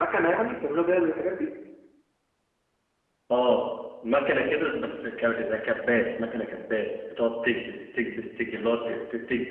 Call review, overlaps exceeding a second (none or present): none